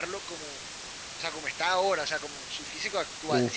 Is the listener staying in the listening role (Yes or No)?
No